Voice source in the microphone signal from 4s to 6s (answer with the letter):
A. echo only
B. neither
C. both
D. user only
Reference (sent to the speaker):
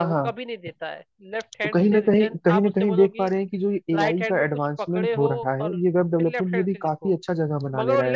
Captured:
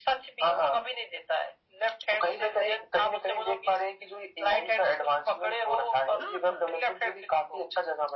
A